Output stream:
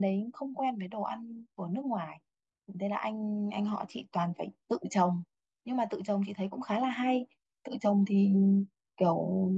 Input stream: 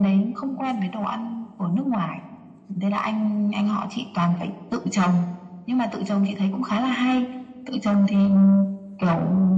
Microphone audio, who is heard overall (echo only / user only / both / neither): echo only